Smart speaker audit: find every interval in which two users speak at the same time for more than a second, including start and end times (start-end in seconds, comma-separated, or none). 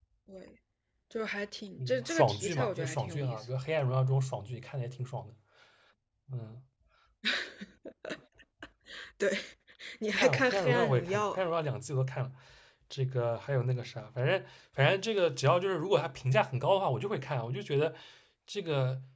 1.8-3.4, 10.1-11.5